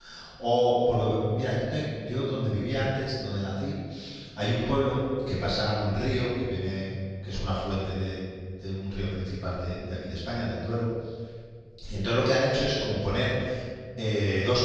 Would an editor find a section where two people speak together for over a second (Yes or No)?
No